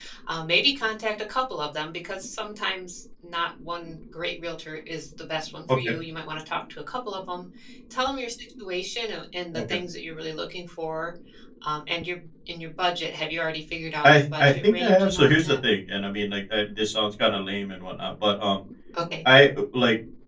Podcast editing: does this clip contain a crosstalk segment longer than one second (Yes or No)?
Yes